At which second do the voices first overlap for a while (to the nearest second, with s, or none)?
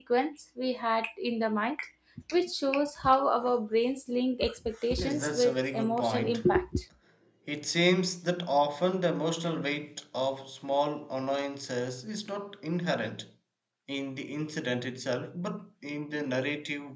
5 s